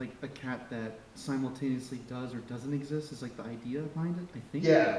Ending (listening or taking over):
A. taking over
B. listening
A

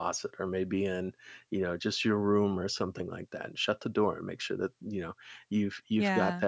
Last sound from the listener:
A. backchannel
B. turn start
A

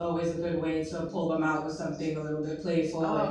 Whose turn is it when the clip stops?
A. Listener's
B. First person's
B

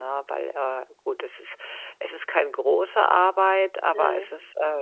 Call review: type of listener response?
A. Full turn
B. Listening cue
B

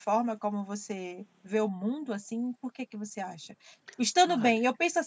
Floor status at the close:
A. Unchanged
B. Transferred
A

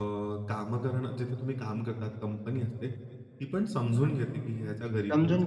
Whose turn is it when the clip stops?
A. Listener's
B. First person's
A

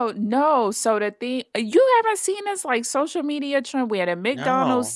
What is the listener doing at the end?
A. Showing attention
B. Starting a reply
A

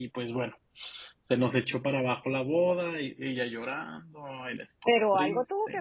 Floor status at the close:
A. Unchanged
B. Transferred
B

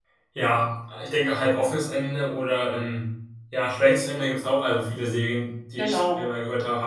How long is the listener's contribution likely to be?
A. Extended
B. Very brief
B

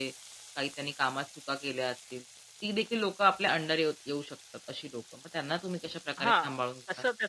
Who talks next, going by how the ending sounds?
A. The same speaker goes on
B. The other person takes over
B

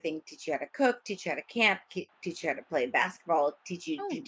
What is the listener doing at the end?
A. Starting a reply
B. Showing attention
B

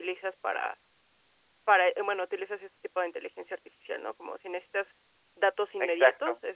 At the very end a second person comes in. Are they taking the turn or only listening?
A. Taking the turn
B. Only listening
B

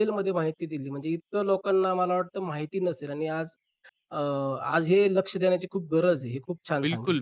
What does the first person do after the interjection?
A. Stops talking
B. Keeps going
A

